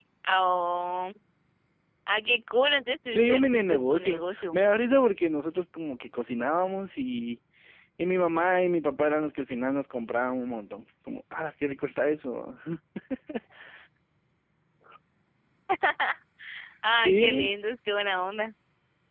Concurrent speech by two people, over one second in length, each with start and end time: 3.1-4.6

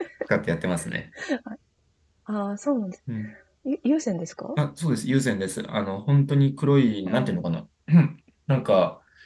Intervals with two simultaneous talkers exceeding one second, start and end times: none

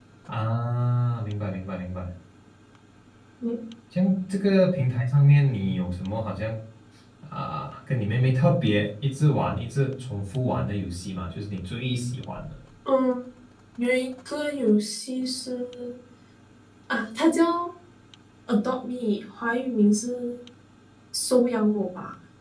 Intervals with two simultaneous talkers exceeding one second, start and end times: none

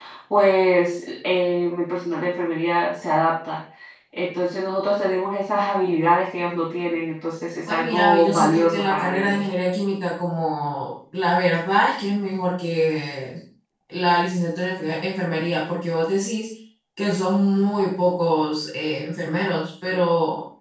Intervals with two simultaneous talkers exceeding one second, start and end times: 7.7-9.4

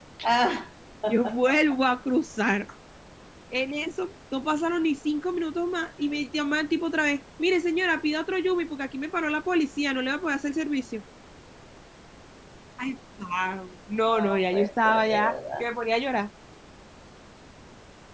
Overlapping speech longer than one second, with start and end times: 14.1-15.6

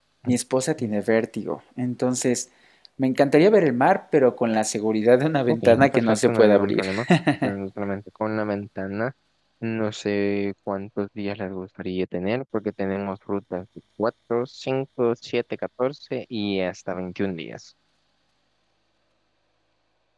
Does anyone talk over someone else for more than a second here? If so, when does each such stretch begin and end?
5.5-6.8

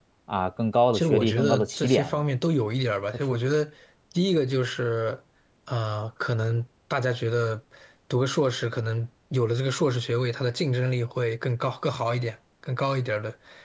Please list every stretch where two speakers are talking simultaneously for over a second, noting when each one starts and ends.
0.9-2.2

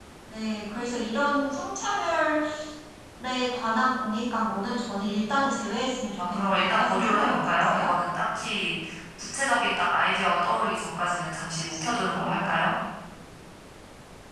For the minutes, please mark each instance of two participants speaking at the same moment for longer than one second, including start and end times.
6.2-8.0

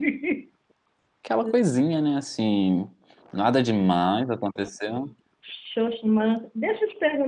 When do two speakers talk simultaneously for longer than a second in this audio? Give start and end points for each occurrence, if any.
none

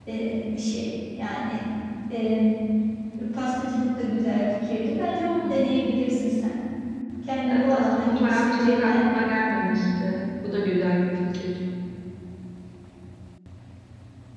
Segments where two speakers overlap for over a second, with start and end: 7.5-9.4

